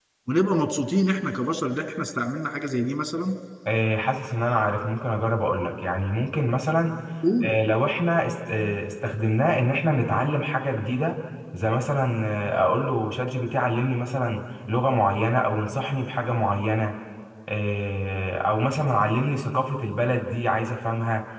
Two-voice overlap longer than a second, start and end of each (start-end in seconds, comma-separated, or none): none